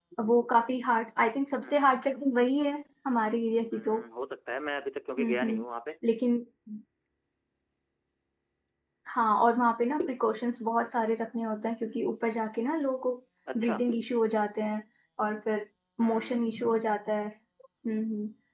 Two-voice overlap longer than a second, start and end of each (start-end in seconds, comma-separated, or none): none